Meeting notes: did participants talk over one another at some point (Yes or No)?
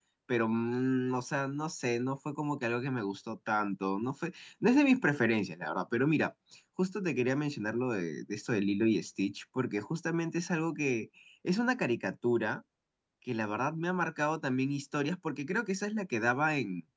No